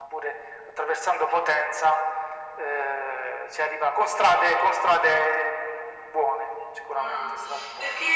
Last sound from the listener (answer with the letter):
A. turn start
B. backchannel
A